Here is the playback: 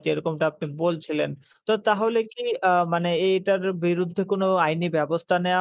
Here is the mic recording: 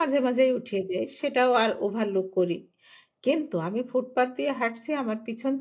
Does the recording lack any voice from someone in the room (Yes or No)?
No